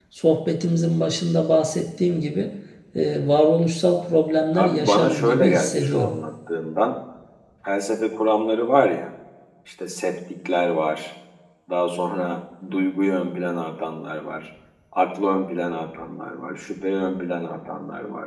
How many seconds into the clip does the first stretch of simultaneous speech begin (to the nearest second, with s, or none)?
5 s